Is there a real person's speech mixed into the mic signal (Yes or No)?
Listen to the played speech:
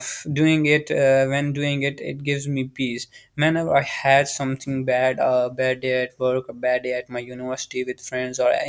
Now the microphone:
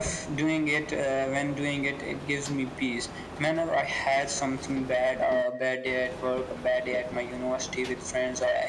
No